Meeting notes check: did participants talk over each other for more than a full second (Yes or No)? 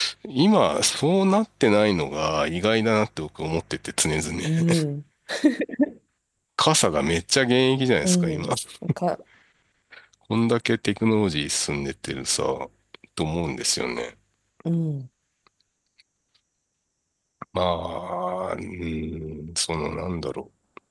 No